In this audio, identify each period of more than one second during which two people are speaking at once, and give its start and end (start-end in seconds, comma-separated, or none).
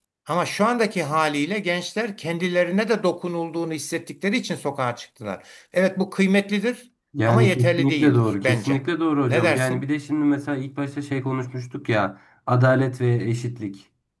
7.3-8.8